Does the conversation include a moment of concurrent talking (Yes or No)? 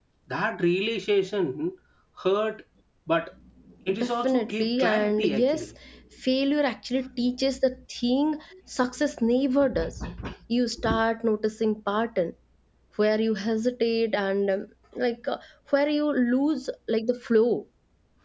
Yes